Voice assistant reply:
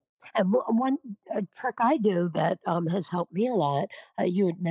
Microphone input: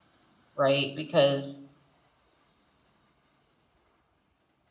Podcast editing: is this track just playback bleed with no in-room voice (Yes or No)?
No